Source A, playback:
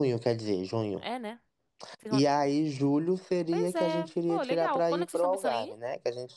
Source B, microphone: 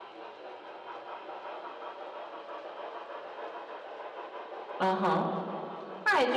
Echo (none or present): none